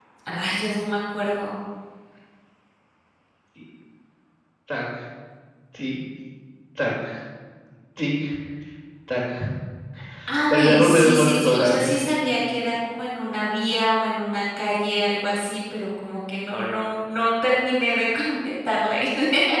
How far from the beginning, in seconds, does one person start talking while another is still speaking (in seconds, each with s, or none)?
10.5 s